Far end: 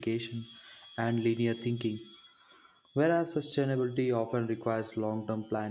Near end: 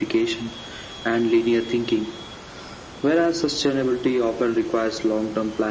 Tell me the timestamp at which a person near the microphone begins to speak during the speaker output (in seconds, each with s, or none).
none